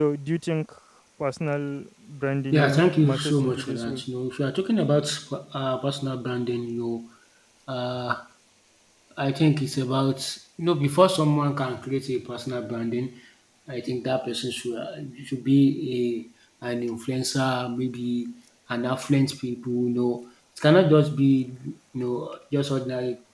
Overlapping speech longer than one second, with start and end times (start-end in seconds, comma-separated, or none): 2.5-4.0